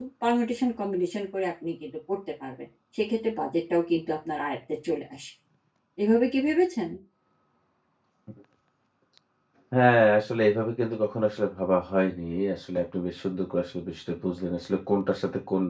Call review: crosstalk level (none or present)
none